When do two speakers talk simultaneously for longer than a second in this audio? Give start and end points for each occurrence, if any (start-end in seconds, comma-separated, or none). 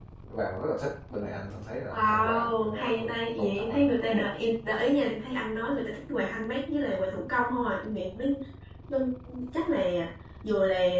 1.9-3.9